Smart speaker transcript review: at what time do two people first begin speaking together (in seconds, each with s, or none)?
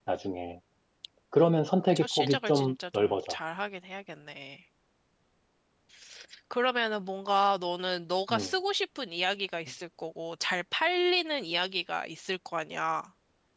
1.9 s